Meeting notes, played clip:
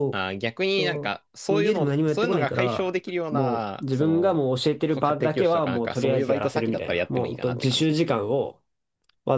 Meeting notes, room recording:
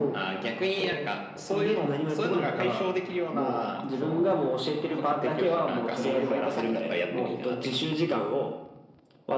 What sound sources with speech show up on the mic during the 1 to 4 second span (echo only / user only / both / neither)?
echo only